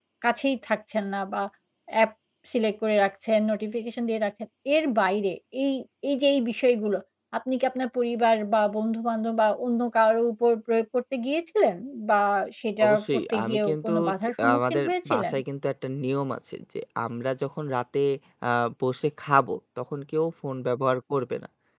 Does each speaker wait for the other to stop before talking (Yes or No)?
No